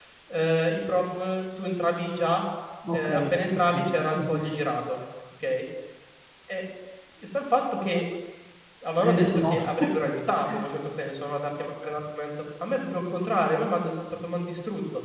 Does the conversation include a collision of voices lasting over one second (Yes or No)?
Yes